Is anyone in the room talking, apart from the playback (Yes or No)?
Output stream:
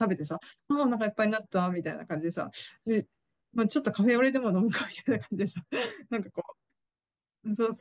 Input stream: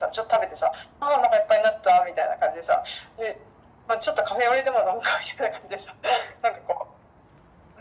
No